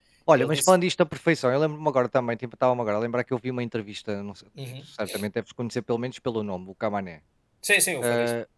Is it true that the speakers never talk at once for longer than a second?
Yes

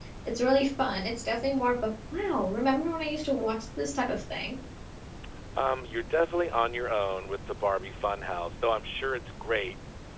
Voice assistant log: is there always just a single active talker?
Yes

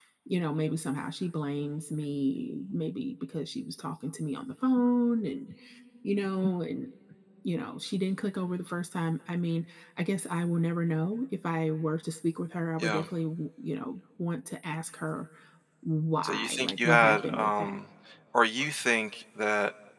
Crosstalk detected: Yes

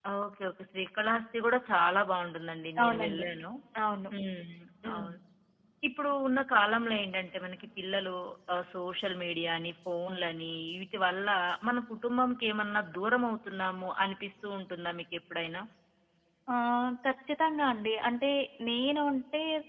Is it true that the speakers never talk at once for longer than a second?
Yes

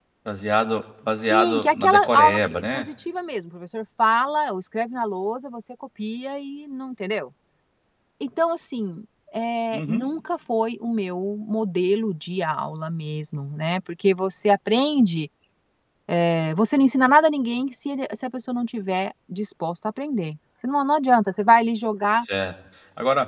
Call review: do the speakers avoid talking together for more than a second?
No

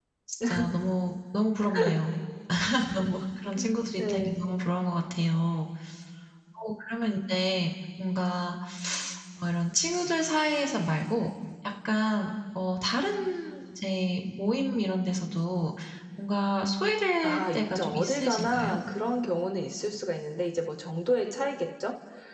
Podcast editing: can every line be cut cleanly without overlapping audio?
No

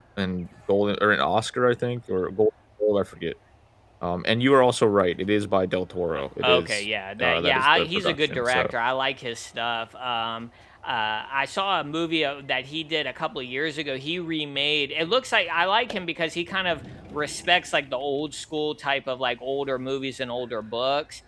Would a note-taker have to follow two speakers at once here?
Yes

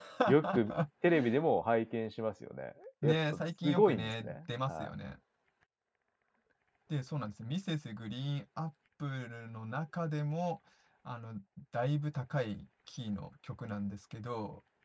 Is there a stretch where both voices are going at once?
Yes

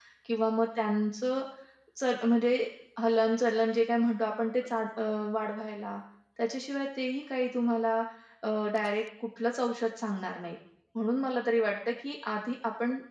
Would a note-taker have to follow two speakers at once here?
No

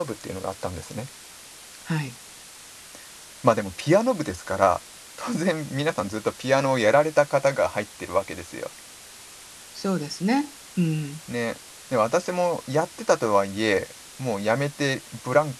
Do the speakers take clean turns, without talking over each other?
Yes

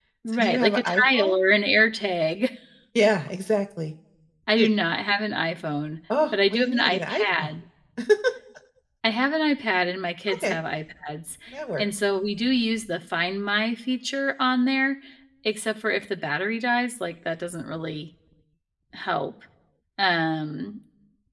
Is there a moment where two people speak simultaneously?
Yes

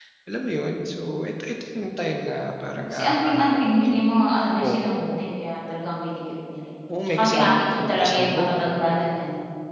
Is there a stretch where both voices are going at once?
Yes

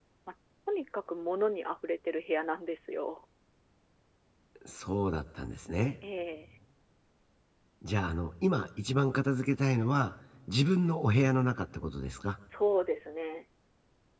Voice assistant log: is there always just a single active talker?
Yes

